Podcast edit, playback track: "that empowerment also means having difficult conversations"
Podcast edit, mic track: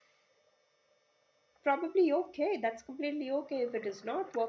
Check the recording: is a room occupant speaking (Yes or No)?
Yes